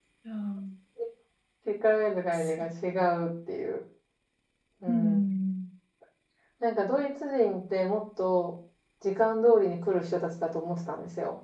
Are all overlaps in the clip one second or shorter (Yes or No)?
Yes